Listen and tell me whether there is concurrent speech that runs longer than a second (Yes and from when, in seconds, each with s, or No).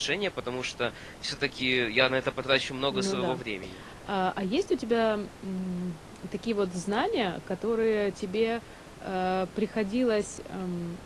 No